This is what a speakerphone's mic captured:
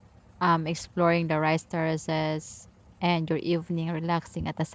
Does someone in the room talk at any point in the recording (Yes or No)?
Yes